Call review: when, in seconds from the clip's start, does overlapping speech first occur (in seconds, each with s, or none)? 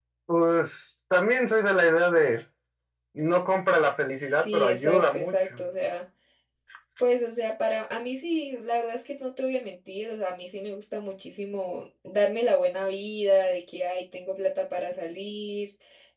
4.2 s